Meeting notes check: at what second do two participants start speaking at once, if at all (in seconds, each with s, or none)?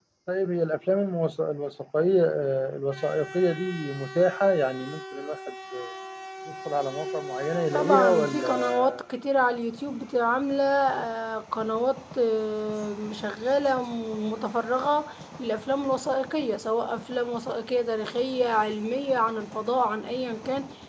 7.7 s